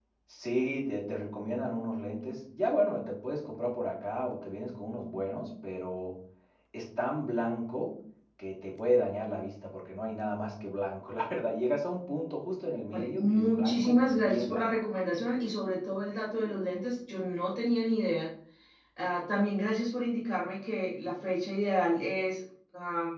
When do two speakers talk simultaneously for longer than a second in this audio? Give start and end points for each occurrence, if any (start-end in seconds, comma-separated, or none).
12.9-14.7